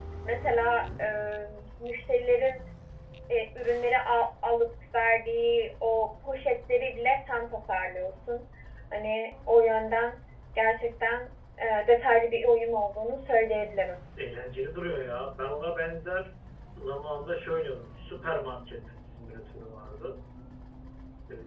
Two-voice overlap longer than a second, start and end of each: none

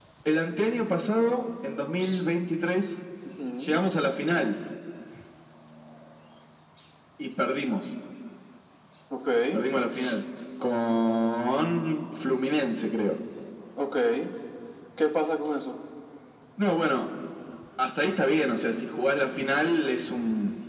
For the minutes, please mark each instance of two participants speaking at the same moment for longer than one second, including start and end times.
none

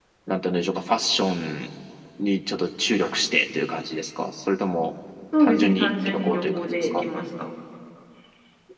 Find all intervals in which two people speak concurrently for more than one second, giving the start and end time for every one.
5.4-7.0

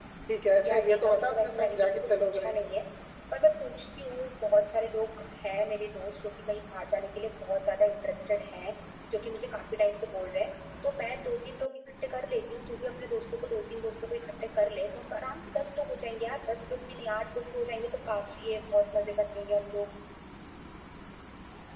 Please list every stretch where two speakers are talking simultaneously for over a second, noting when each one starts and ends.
0.7-2.5

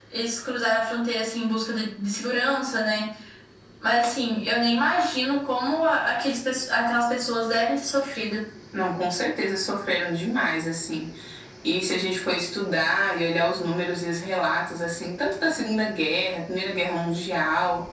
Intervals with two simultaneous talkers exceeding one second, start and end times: none

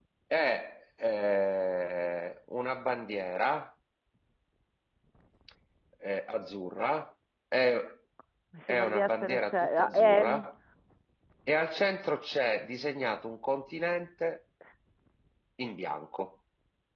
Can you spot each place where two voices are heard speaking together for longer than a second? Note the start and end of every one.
8.7-10.5

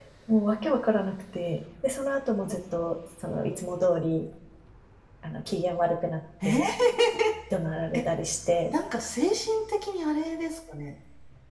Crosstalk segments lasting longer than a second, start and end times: none

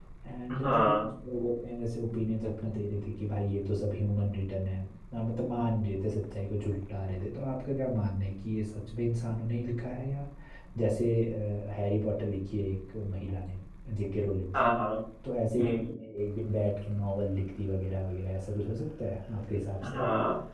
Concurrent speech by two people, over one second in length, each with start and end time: none

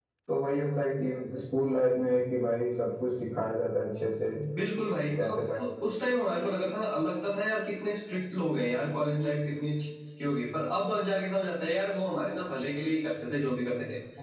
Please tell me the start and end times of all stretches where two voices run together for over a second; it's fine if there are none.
none

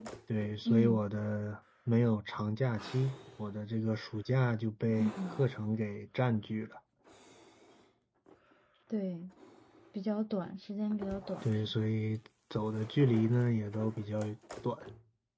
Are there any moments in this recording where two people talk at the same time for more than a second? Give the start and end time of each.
none

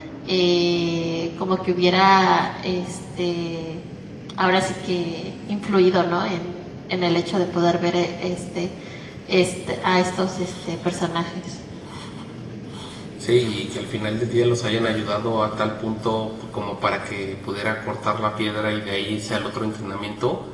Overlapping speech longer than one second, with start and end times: none

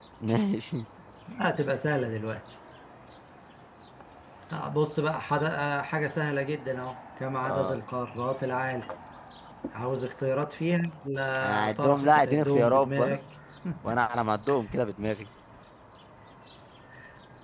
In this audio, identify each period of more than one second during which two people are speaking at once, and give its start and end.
11.4-13.2

